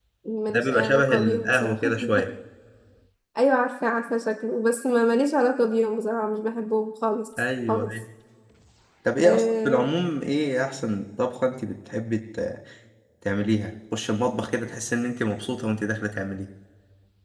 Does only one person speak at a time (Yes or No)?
No